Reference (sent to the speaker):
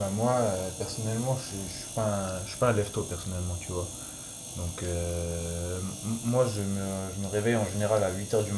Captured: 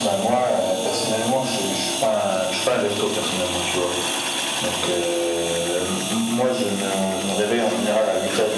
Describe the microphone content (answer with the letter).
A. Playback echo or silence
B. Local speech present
A